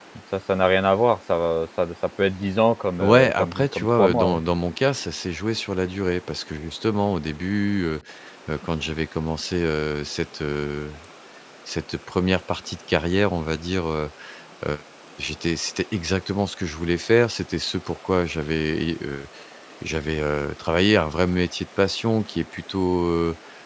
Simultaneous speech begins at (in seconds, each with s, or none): 3.0 s